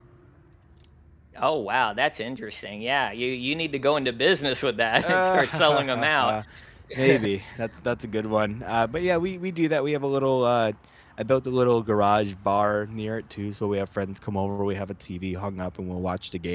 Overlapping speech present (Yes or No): Yes